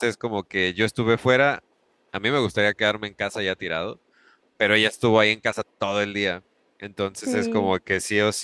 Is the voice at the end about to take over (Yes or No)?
No